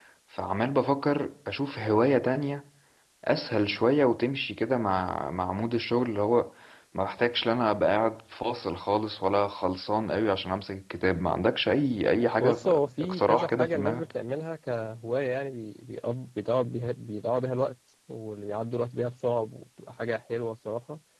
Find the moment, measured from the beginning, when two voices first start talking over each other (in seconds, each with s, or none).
12.4 s